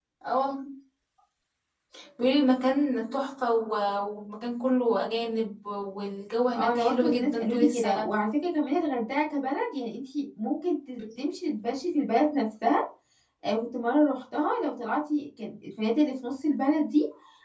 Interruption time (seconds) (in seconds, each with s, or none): 6.5 s